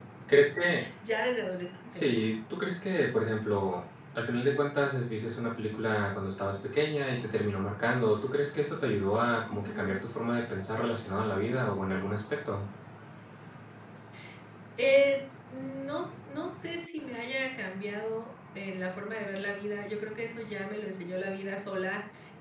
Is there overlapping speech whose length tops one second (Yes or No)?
No